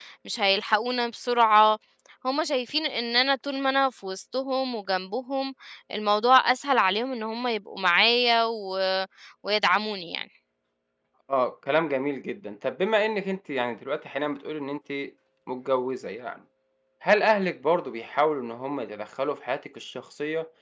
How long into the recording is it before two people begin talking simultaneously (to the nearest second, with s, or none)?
none